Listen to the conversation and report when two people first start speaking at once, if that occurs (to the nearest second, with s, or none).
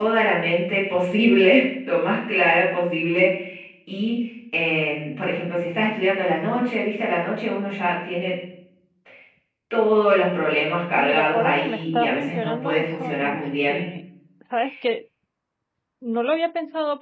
11 s